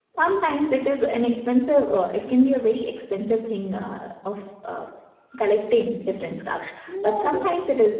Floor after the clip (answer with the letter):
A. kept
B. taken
A